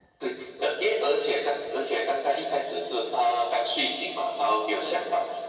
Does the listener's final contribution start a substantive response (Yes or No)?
No